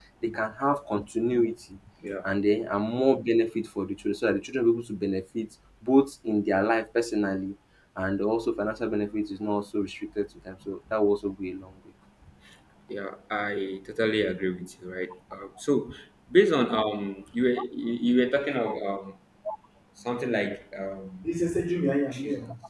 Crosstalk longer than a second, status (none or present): none